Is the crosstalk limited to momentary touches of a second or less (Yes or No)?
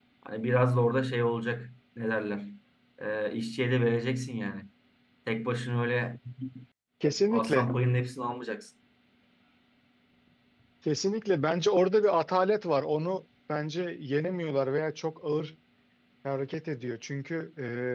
Yes